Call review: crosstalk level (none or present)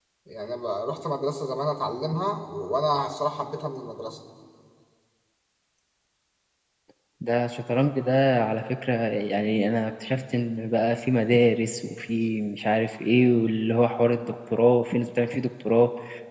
none